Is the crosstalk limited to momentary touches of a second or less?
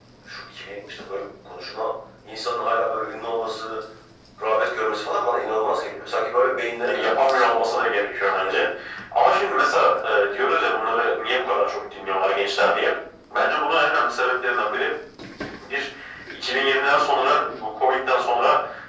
No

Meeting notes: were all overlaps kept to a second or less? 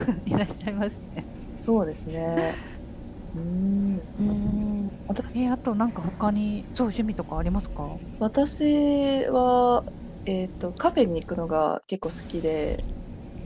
Yes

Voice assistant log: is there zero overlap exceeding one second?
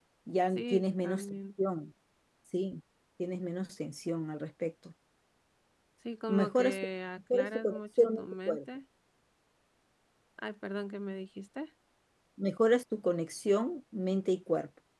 No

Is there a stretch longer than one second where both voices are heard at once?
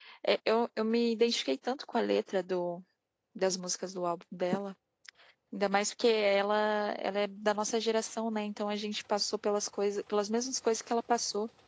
No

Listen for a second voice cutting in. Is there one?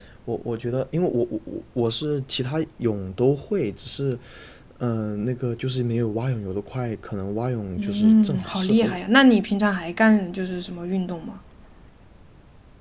Yes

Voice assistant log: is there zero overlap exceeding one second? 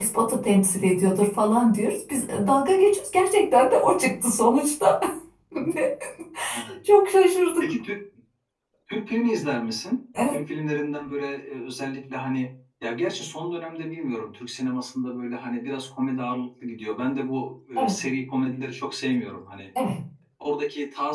Yes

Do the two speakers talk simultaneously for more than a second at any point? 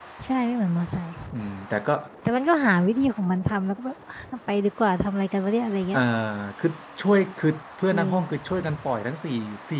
No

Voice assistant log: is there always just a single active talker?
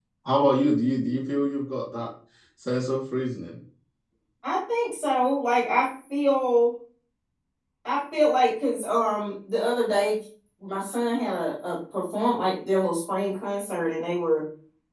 Yes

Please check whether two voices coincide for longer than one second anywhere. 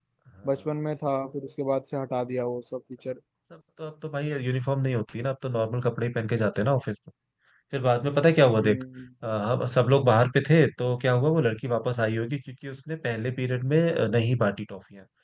No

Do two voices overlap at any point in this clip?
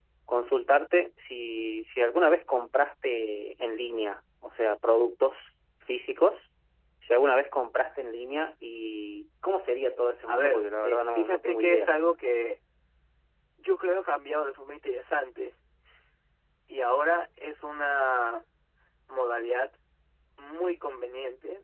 Yes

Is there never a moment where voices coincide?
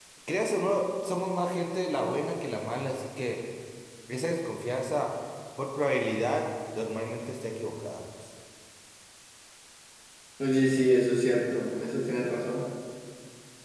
Yes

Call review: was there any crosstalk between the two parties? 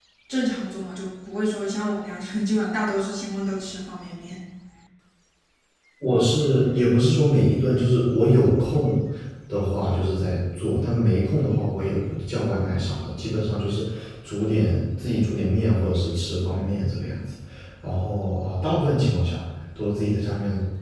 No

